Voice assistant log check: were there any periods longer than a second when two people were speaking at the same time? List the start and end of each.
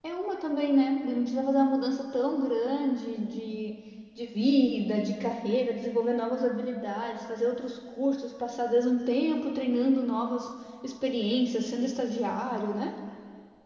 none

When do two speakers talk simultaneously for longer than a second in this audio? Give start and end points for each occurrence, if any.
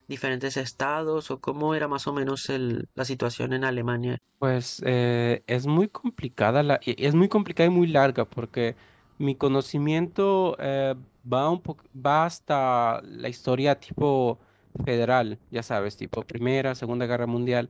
none

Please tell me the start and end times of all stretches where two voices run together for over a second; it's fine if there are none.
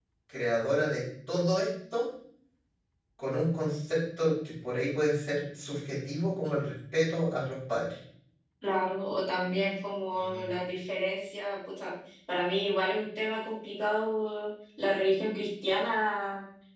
none

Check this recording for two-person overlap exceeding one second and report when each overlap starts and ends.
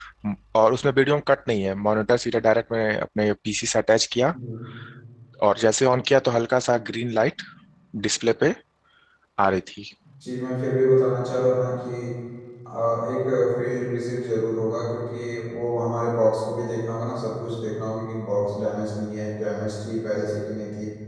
none

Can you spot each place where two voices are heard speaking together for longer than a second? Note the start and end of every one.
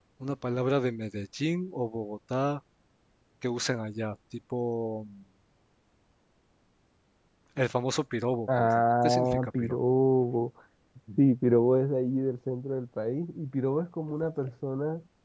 8.6-9.8

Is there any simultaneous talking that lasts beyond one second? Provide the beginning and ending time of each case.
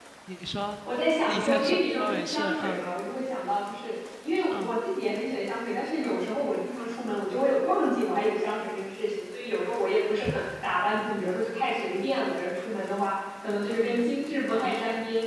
1.2-2.8

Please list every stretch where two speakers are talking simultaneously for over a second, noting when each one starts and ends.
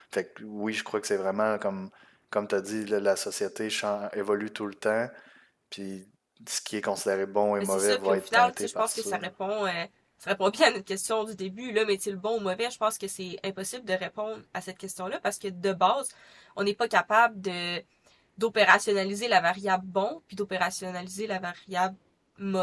7.6-9.1

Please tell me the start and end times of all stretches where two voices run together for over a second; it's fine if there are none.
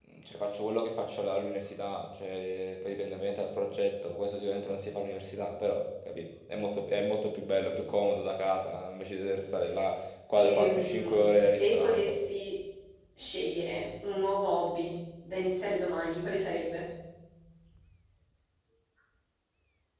10.3-12.1

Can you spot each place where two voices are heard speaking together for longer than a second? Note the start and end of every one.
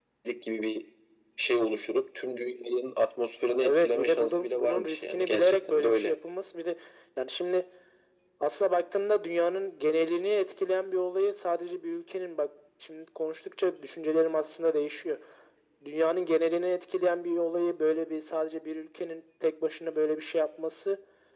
3.5-6.2

